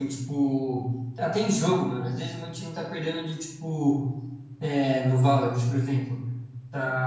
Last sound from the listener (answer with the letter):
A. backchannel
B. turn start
A